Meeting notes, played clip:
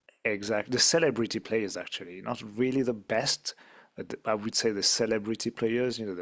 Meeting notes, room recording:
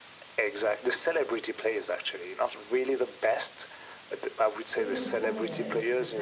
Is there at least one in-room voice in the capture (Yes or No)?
Yes